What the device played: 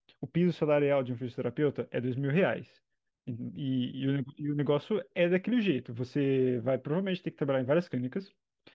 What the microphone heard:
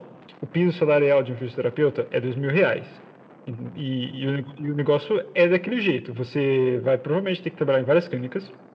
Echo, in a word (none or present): present